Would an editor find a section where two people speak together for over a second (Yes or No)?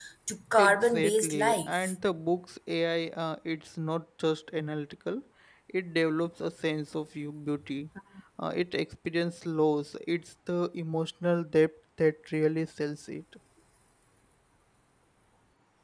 Yes